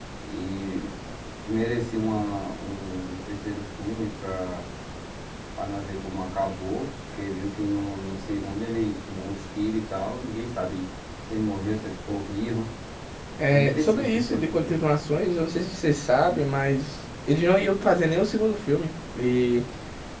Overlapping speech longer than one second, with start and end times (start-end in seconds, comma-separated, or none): 13.5-14.8